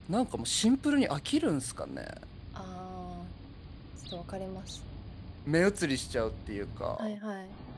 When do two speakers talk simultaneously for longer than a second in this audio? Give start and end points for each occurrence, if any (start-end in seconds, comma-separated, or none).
none